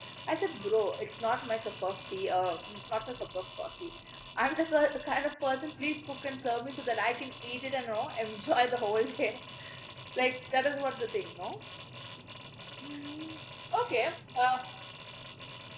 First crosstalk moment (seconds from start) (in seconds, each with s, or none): none